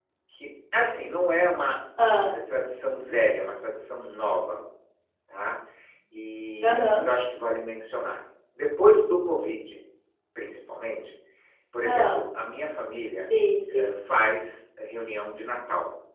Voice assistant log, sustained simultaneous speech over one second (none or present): none